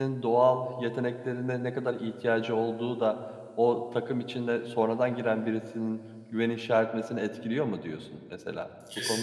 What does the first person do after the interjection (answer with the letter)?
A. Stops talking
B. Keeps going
A